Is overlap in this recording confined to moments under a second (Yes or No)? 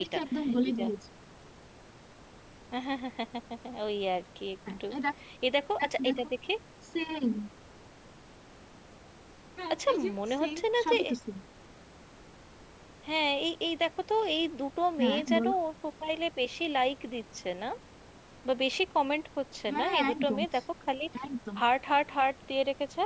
No